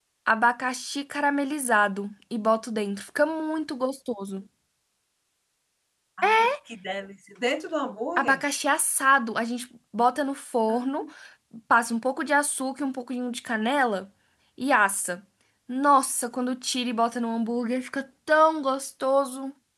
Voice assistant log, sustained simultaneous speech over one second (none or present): none